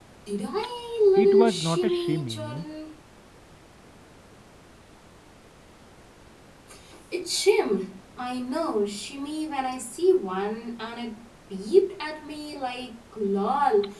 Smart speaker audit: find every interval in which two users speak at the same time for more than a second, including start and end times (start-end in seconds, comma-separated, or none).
1.2-2.6